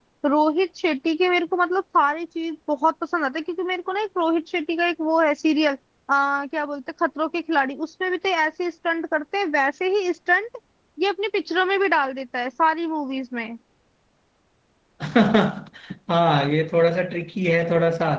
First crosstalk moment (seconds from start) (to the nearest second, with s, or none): none